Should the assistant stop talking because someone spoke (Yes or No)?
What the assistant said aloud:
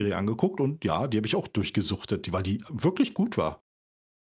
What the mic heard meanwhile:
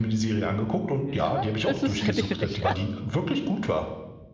Yes